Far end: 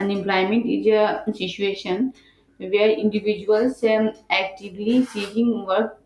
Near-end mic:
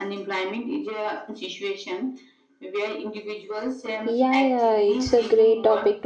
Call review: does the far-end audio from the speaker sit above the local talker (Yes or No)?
No